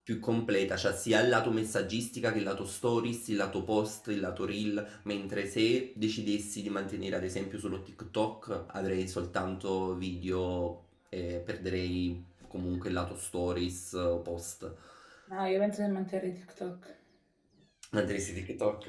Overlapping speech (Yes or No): No